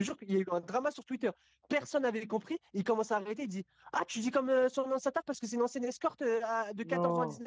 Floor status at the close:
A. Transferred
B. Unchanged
B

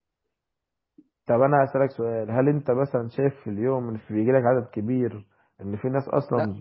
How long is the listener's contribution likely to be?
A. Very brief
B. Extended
B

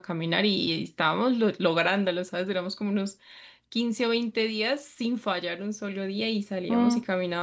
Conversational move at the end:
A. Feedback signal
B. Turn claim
A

